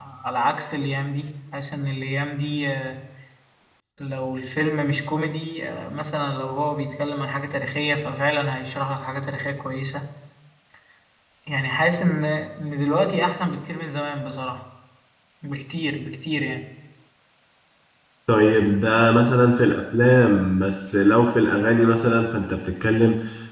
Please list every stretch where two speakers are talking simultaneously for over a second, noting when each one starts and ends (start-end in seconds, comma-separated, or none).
none